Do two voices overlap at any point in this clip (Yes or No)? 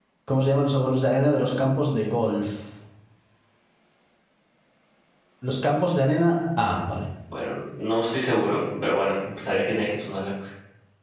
No